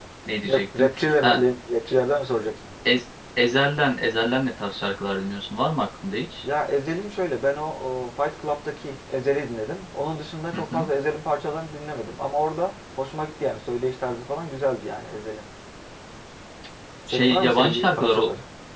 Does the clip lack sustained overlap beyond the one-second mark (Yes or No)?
No